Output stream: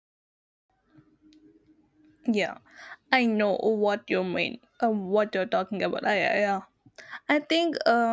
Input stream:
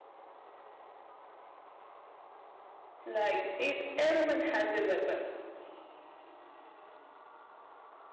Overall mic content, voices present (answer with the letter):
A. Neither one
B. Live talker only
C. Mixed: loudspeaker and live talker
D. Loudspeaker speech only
B